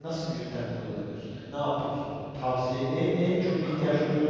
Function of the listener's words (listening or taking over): listening